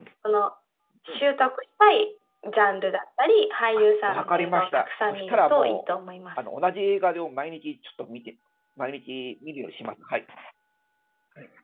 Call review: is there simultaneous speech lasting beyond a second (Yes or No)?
Yes